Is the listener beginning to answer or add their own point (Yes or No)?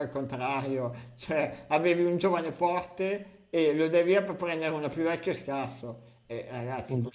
No